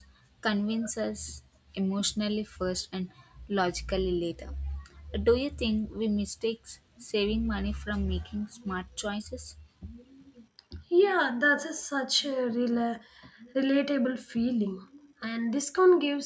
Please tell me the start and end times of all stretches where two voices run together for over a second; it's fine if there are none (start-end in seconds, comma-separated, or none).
none